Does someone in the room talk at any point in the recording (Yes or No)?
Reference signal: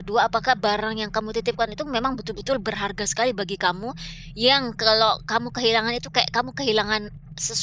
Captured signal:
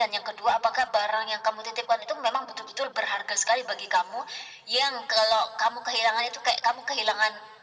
No